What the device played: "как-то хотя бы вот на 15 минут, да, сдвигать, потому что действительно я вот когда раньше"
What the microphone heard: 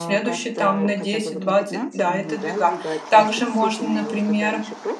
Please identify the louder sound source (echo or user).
user